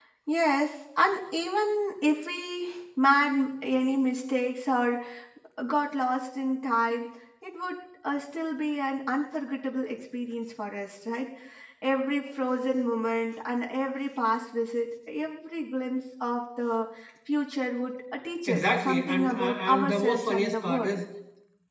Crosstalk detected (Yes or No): Yes